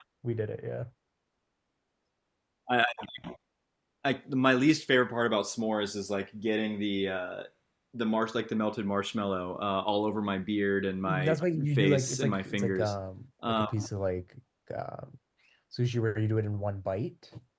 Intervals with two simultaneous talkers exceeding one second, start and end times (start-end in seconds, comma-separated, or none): 11.1-12.9